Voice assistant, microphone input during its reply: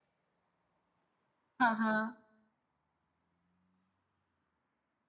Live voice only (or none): हाँ, हाँ,